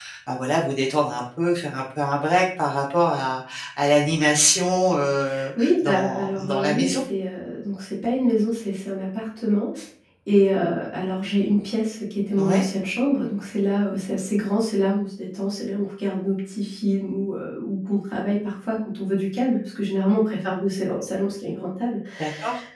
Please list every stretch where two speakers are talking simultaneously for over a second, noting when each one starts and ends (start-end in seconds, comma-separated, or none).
5.6-7.0